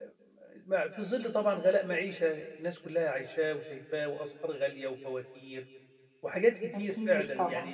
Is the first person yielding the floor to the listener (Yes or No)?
No